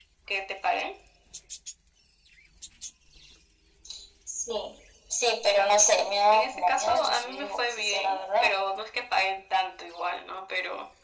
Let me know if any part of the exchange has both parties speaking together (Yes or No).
Yes